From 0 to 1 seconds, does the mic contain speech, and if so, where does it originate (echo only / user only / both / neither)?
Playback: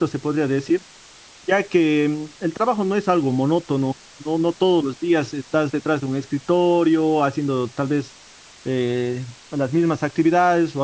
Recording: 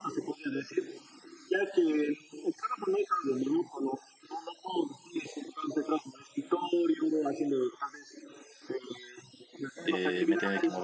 echo only